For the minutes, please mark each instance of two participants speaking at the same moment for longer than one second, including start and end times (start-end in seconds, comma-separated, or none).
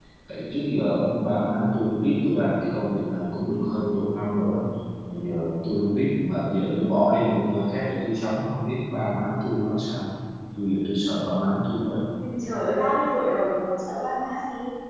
none